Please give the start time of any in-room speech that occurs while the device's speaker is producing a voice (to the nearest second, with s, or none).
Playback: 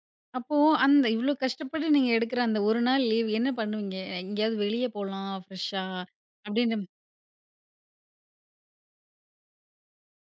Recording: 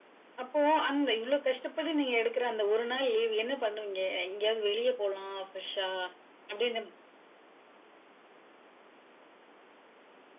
none